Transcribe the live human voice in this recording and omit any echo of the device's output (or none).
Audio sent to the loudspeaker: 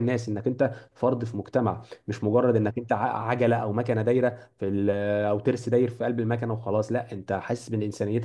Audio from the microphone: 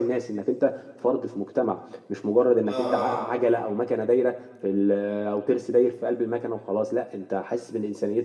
اه اه, آه.